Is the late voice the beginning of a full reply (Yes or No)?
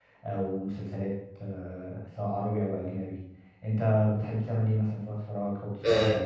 Yes